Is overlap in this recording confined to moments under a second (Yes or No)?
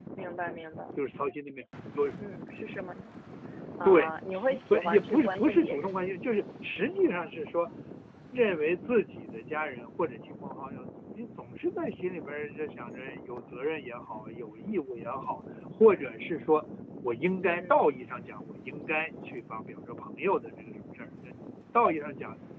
No